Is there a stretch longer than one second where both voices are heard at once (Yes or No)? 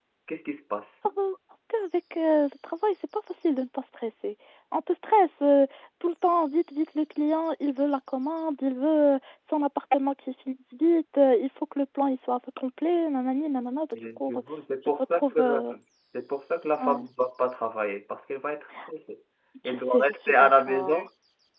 Yes